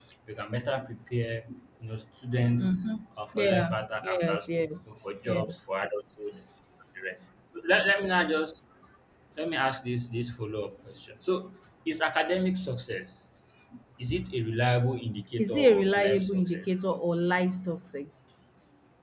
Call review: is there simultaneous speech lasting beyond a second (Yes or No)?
Yes